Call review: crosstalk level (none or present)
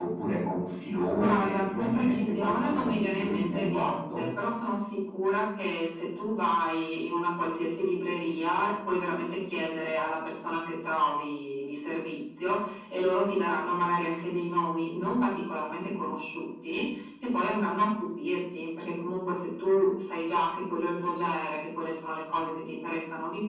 present